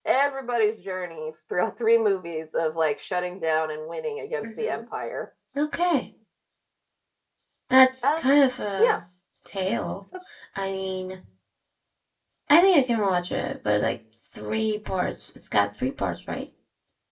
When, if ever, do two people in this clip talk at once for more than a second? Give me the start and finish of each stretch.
none

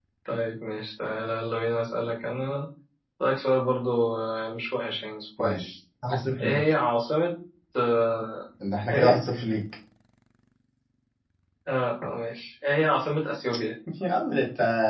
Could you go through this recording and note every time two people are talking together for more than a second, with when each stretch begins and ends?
none

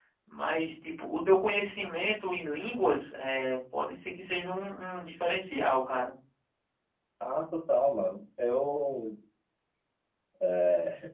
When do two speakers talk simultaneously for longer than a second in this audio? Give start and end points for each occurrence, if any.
none

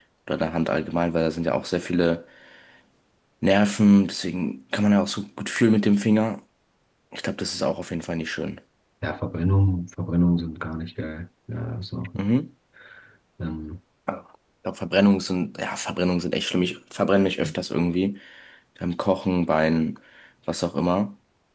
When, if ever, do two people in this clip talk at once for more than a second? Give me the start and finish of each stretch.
none

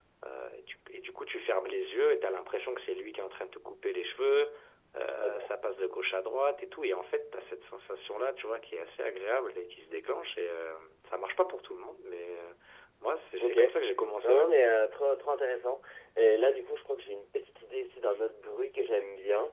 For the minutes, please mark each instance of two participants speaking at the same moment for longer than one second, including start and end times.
none

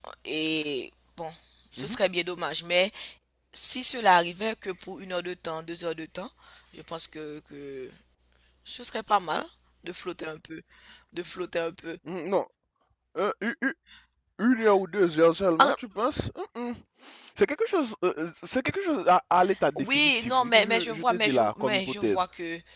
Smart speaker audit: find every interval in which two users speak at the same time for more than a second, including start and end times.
19.8-22.2

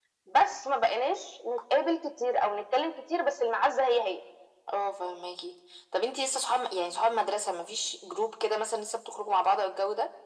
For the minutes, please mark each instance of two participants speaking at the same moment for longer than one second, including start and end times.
none

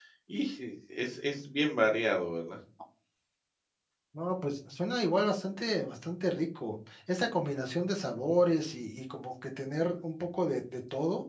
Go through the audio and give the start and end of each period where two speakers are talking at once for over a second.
none

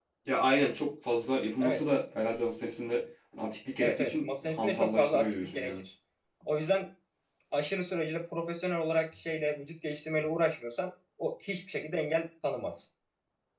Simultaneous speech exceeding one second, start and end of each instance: 3.8-5.8

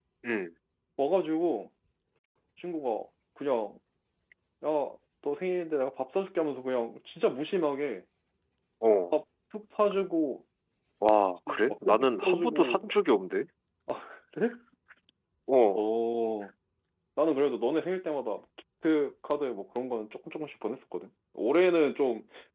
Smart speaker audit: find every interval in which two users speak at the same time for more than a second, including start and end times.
11.5-12.8

